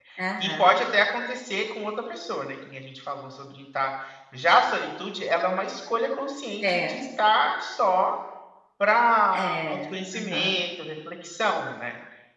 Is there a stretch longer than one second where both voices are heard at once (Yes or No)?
Yes